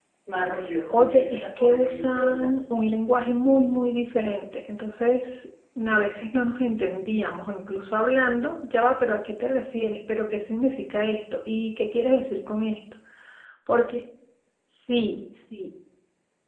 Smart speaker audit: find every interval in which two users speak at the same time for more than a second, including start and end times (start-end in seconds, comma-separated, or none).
0.9-2.6